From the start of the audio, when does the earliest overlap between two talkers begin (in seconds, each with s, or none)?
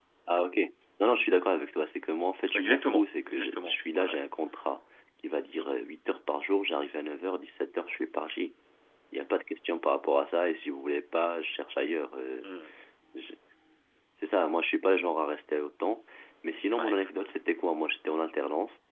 2.5 s